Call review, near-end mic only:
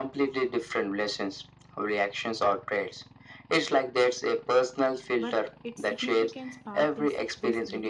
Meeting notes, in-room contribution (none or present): present